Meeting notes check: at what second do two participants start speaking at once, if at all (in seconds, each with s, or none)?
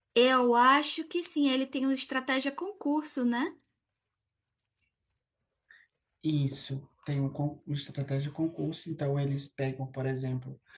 none